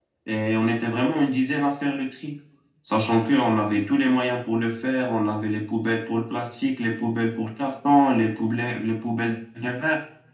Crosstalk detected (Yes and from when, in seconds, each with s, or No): No